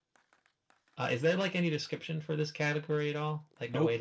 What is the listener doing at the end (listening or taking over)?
taking over